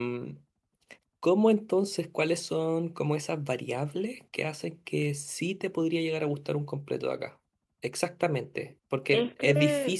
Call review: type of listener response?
listening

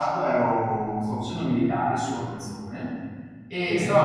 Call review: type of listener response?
listening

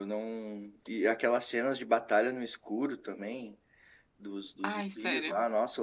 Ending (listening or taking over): listening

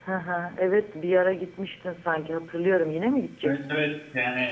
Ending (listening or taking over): taking over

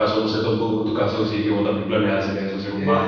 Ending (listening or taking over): taking over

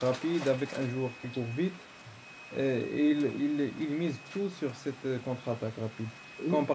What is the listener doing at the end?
listening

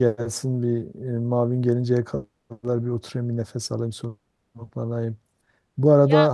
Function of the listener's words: listening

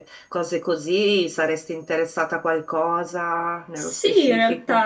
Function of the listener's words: taking over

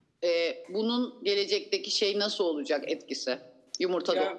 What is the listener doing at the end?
taking over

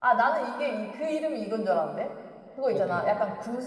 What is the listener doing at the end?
listening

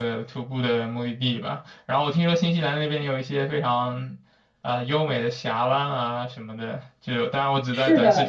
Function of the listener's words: listening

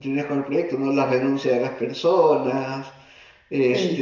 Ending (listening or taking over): listening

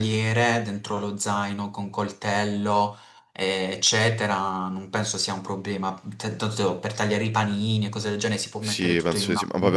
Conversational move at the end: taking over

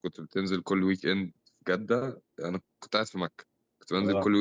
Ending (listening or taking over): listening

